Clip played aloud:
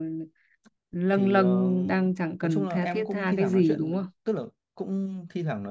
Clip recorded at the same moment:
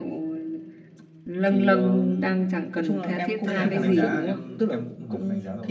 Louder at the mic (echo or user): echo